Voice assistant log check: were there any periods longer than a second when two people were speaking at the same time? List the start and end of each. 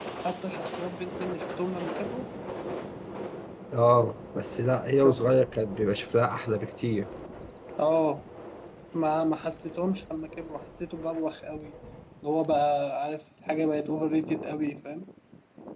none

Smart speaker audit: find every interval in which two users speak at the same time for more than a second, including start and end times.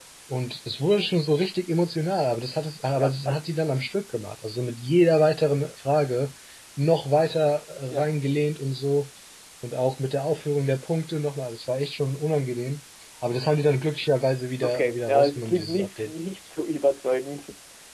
14.6-16.1

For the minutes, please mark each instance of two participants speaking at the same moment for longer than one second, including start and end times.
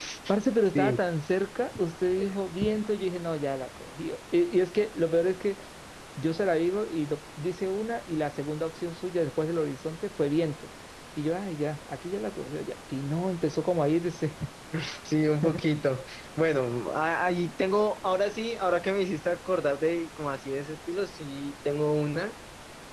none

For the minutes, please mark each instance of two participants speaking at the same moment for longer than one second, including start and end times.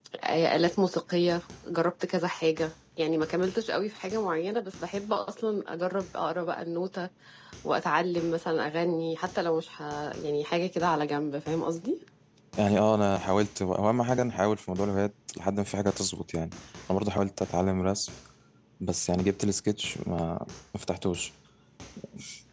none

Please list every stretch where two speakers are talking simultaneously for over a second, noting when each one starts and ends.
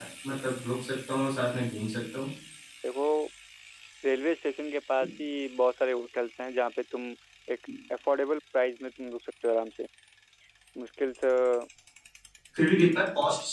none

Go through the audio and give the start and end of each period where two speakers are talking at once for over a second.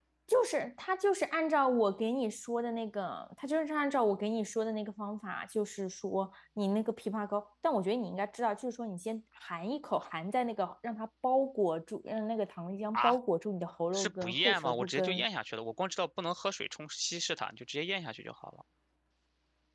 13.9-15.2

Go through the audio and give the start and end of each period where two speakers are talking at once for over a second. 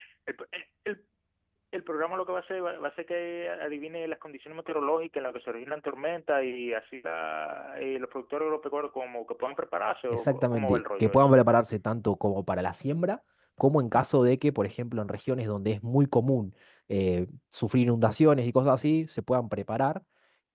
10.1-11.3

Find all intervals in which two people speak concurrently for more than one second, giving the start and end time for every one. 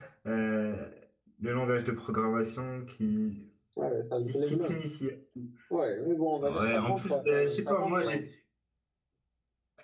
6.4-8.2

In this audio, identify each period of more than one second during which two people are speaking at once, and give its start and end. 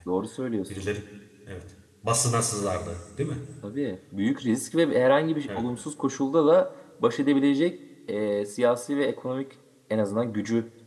none

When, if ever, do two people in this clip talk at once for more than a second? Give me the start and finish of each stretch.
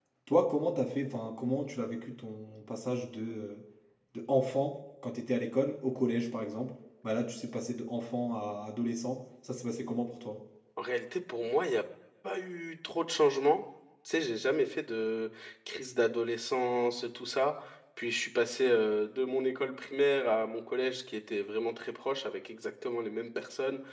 none

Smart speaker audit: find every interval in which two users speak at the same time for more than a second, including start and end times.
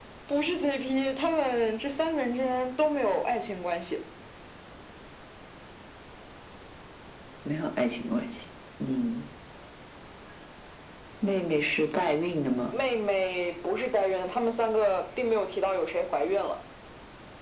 none

